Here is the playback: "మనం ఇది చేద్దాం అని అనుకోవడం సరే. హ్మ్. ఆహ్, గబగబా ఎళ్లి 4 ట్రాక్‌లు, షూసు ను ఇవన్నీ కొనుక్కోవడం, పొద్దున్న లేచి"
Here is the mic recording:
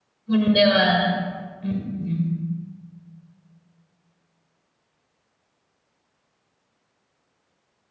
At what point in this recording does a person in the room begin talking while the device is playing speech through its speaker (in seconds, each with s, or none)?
0.3 s